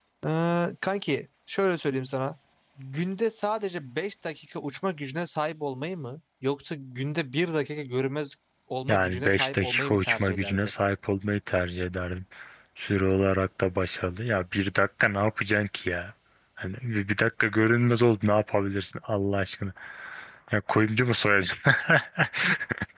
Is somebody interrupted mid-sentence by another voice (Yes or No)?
Yes